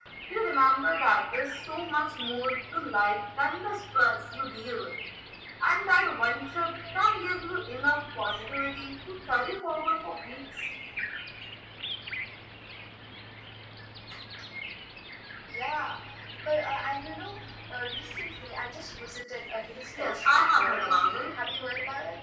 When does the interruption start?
19.9 s

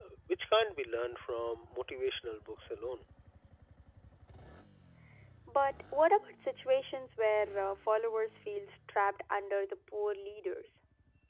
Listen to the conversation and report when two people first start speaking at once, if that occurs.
none

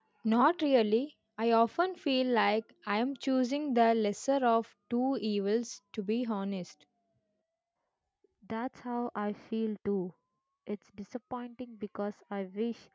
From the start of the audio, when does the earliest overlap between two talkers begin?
none

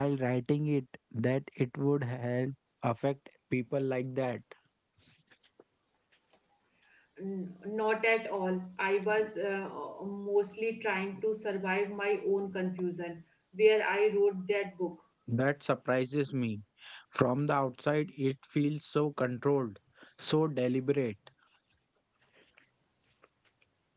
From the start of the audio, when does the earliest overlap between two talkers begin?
none

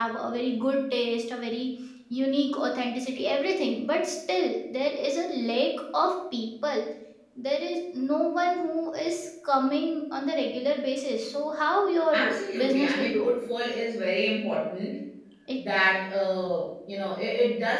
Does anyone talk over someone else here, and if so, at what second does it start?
12.1 s

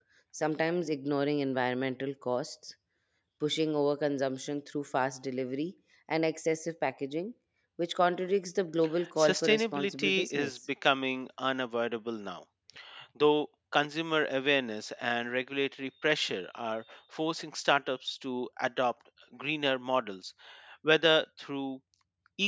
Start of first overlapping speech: 9.0 s

